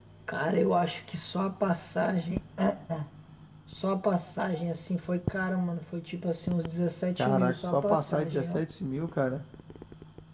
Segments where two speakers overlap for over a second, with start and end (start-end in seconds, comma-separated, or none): 7.2-8.6